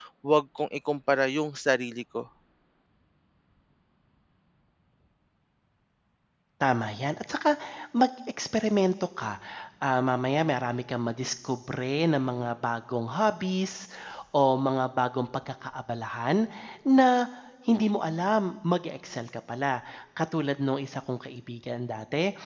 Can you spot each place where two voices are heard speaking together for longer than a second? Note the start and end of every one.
none

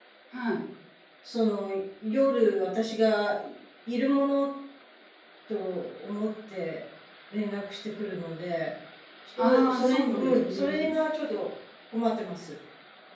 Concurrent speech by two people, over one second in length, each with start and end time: 9.4-11.0

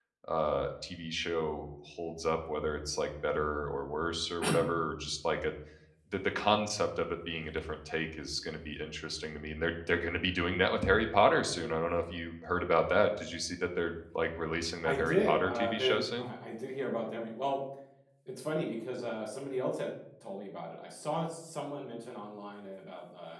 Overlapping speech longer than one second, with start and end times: 14.8-16.3

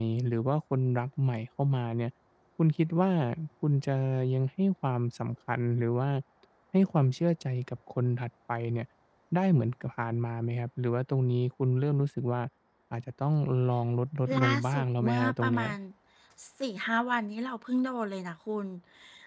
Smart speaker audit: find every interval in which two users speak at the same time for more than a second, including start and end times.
14.5-15.7

